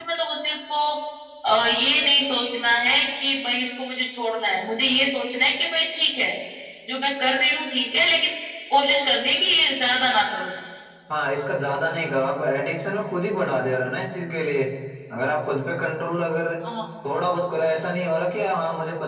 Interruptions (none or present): none